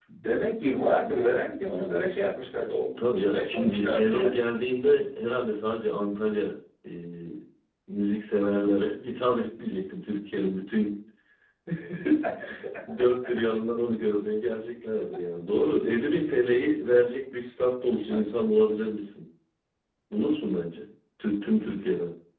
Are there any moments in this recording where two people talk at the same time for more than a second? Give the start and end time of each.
3.2-4.4

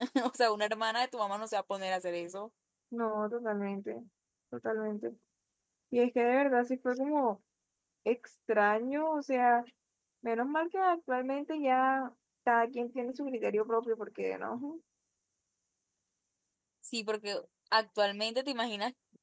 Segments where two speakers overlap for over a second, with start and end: none

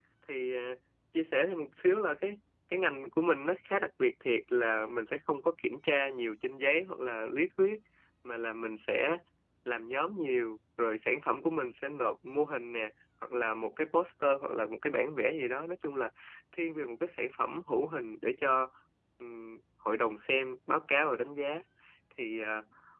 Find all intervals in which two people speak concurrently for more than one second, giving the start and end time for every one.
none

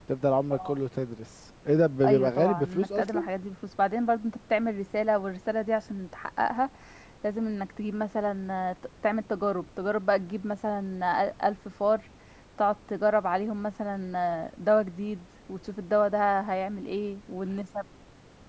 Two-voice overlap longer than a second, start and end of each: 2.0-3.3

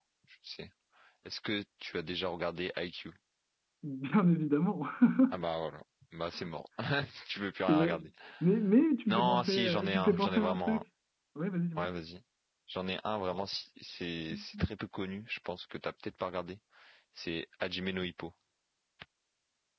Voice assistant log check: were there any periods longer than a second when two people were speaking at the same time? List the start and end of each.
9.1-10.8

